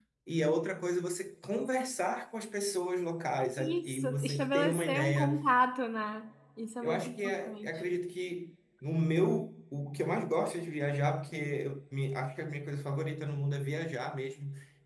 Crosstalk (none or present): present